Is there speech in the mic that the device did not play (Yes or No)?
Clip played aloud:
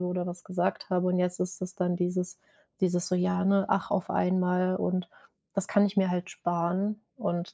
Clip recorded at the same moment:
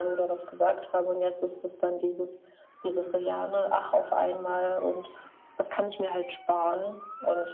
No